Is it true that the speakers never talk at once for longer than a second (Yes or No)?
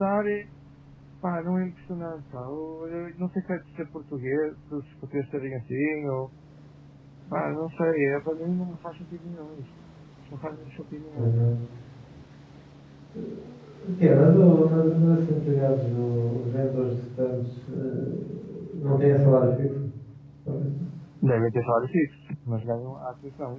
Yes